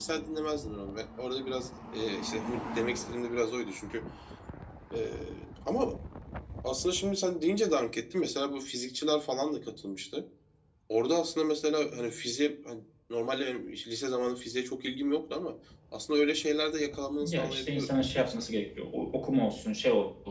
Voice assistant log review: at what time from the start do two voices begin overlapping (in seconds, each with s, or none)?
17.2 s